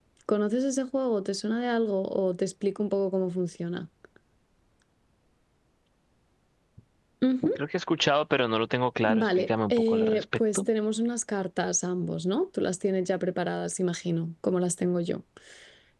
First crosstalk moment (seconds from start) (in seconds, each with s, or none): 9.0 s